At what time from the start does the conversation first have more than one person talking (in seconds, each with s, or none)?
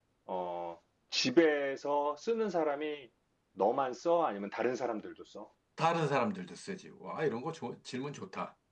none